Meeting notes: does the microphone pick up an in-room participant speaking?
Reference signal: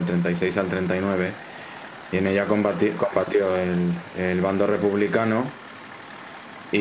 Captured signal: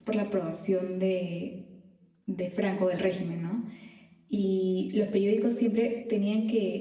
Yes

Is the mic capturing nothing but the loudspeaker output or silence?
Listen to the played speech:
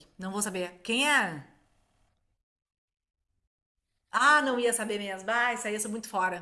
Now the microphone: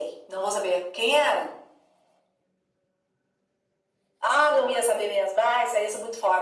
Yes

